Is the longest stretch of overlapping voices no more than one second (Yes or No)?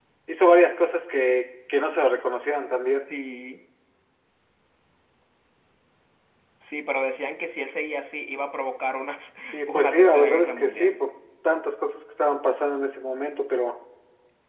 No